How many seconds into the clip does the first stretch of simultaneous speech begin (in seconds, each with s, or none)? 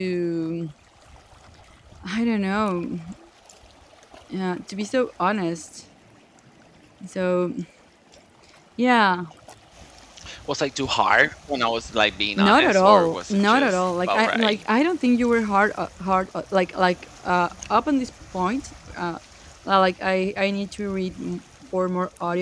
12.4 s